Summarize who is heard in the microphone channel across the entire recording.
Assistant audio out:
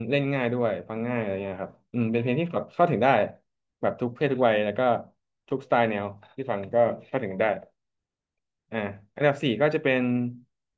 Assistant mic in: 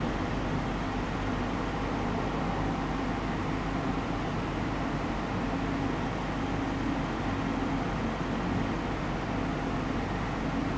neither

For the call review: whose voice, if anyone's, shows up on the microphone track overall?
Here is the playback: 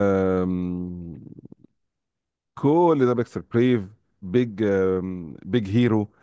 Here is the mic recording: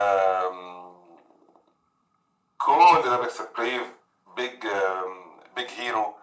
echo only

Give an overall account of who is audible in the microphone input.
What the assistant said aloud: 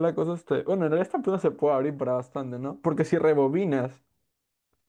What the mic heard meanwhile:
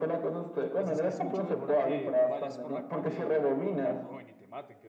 both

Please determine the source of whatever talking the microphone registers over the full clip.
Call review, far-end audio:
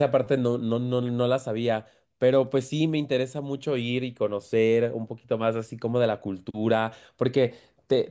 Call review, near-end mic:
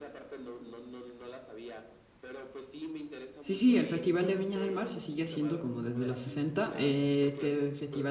both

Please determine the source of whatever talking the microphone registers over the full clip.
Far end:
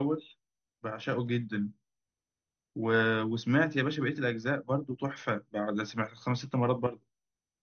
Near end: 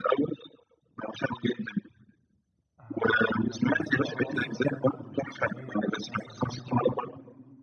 both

